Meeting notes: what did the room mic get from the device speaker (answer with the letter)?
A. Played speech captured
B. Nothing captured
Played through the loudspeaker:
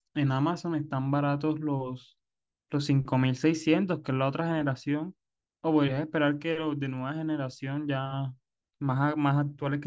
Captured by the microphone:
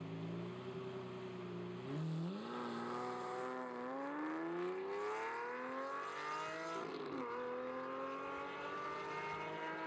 B